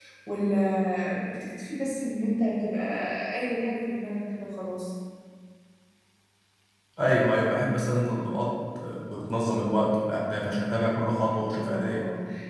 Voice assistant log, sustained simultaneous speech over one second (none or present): none